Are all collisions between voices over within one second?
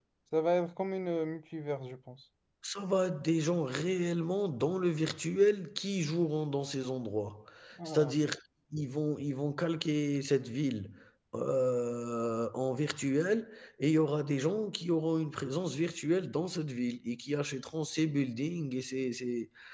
Yes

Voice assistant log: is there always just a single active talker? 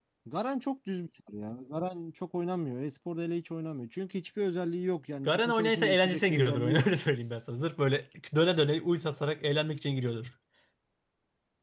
No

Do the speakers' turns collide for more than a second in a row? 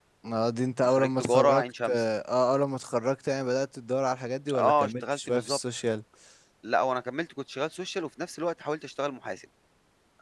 Yes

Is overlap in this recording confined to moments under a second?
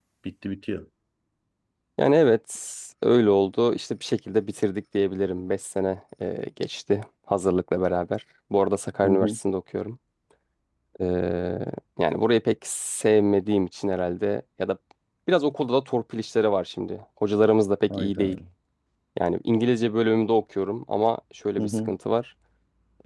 Yes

